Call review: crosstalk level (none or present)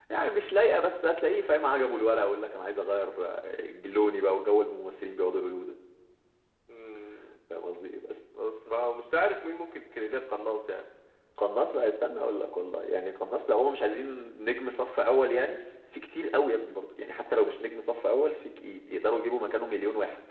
none